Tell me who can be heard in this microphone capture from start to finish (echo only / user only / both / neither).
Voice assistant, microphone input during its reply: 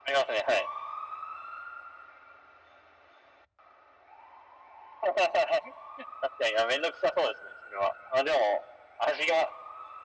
echo only